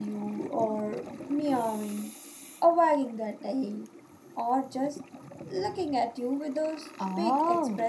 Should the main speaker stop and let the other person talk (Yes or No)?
Yes